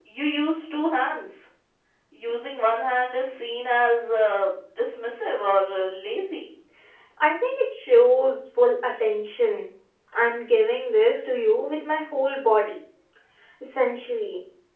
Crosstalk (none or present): none